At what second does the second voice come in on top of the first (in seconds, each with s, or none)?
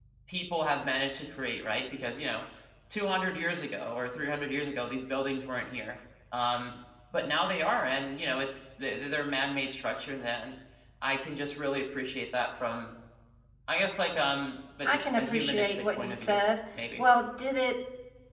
14.8 s